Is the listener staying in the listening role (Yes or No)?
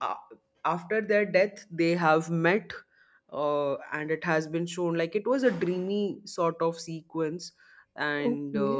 No